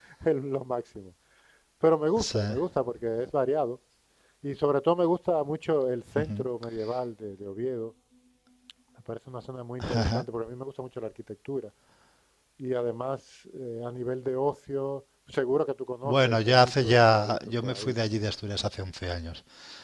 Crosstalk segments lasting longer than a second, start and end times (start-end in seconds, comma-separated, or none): 16.0-17.9